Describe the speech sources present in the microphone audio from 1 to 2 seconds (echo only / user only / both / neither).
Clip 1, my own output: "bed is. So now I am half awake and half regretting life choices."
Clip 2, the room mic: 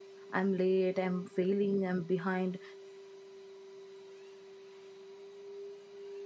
user only